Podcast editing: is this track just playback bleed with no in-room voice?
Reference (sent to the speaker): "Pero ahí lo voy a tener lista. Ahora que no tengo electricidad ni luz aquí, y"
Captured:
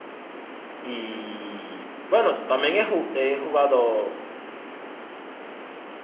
No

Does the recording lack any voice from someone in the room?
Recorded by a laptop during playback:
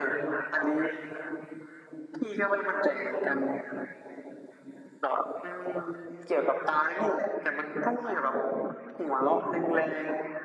Yes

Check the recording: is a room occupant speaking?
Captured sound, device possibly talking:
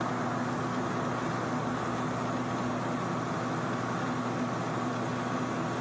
No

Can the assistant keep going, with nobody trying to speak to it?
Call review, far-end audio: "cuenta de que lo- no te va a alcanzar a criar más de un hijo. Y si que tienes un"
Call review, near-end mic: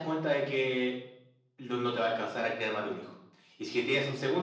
Yes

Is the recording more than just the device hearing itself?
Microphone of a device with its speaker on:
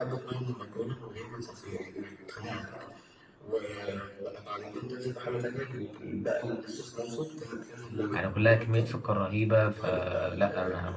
Yes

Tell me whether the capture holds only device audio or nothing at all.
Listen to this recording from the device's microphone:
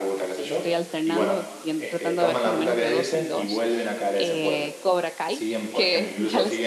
No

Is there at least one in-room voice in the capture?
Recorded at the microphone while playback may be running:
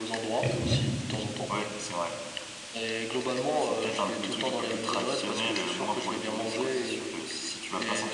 Yes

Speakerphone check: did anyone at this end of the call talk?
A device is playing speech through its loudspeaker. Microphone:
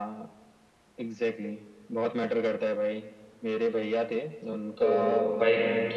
Yes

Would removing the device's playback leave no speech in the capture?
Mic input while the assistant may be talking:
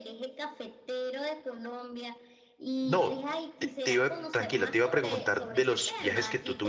No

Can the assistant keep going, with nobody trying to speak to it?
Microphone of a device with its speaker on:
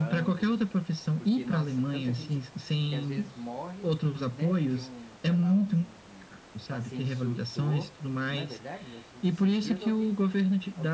No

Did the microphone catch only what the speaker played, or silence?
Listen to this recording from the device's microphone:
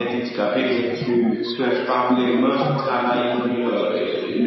No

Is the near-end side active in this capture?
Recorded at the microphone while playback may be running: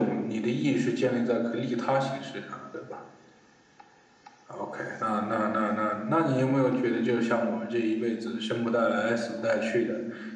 No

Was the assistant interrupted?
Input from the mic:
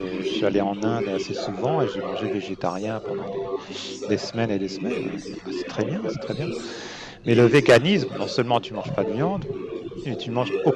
Yes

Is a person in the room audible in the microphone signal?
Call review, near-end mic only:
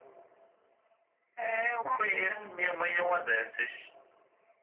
Yes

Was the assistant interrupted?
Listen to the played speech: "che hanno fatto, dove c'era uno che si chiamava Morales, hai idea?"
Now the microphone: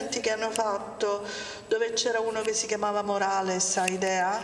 No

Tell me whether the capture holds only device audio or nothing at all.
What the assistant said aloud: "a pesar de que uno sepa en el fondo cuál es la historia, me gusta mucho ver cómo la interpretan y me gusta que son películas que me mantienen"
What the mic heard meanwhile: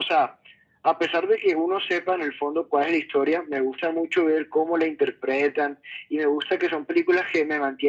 Yes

